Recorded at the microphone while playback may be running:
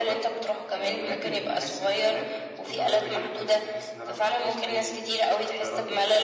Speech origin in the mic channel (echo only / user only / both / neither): echo only